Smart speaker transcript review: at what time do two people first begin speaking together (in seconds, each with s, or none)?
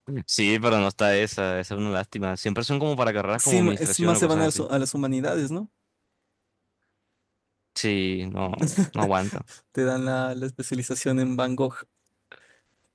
3.4 s